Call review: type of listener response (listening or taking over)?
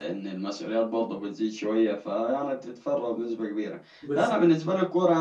listening